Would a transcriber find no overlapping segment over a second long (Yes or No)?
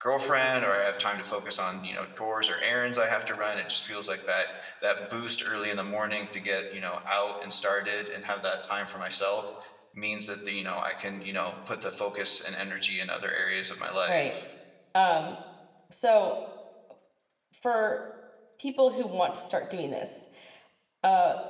Yes